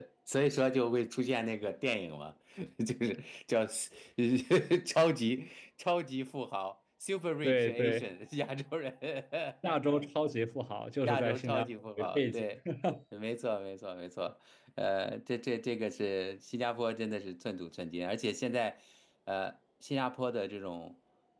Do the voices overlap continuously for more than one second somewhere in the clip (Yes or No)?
Yes